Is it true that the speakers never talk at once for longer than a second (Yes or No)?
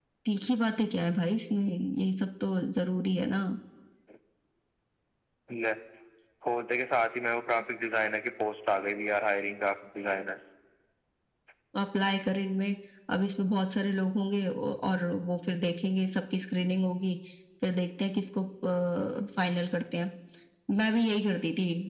Yes